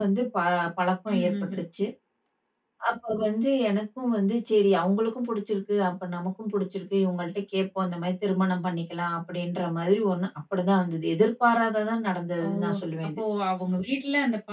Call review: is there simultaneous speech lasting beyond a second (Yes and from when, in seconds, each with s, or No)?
No